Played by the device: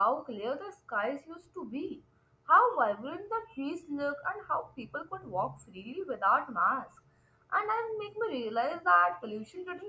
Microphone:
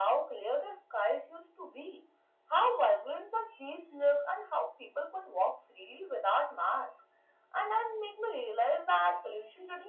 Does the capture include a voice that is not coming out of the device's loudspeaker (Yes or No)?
No